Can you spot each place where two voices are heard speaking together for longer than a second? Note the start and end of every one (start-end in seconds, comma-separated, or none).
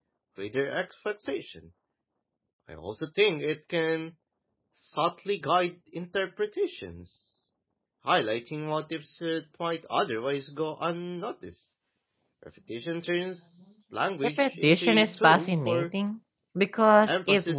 14.4-15.9